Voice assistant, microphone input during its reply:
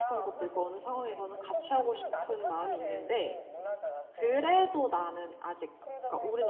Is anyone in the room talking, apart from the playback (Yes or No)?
Yes